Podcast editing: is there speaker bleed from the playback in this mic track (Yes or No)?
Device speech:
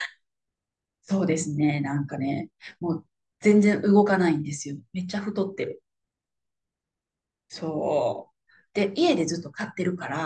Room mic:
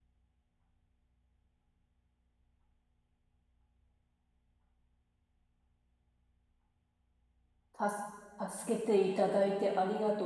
No